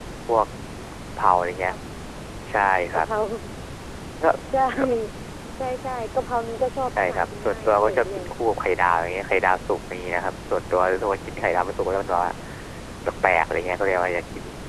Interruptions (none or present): present